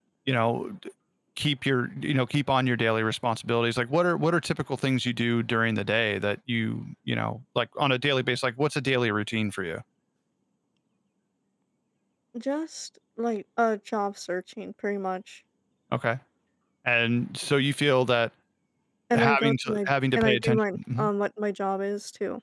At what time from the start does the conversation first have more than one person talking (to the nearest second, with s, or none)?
19 s